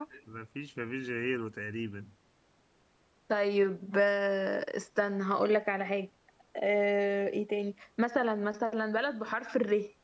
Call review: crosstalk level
none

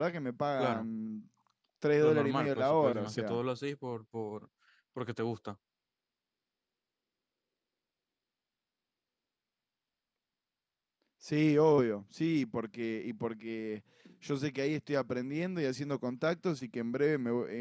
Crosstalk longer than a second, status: present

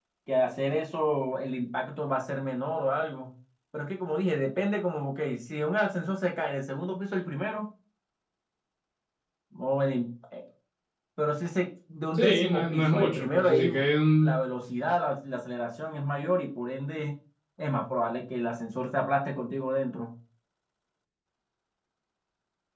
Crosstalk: present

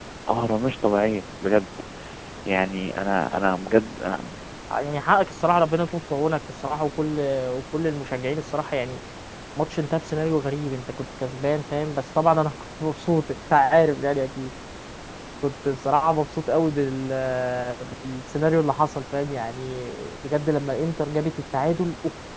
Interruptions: none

